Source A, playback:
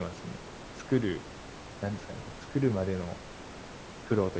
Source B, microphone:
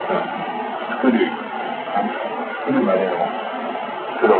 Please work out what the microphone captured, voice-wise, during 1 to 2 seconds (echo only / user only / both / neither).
echo only